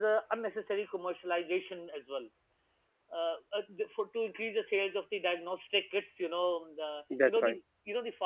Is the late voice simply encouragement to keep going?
Yes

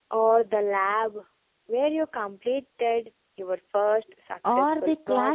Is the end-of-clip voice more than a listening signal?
Yes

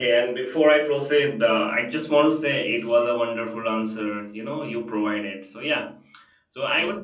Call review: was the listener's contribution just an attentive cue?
Yes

